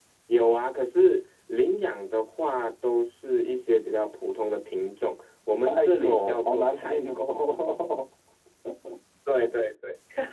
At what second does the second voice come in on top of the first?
5.6 s

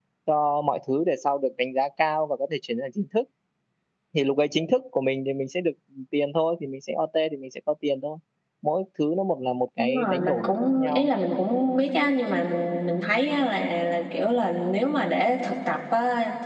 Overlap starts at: 9.8 s

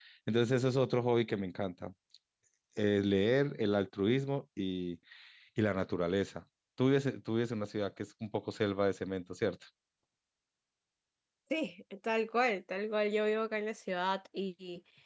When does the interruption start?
none

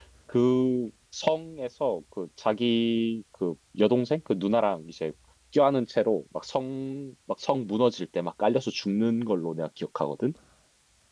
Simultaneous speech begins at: none

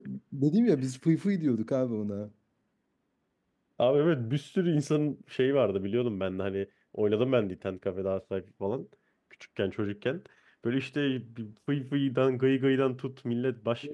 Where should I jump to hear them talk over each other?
none

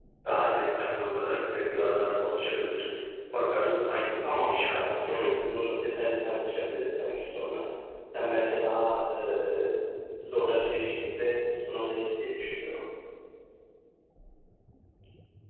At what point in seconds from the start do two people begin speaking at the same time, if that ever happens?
4.2 s

